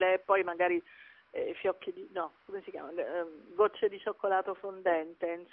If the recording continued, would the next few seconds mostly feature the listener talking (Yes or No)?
No